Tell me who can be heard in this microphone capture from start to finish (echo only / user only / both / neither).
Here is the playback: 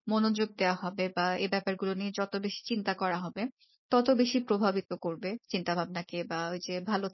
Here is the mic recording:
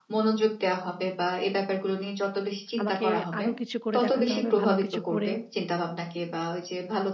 both